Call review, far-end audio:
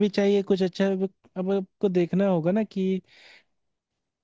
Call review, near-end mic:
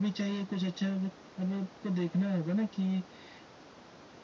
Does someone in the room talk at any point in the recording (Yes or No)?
No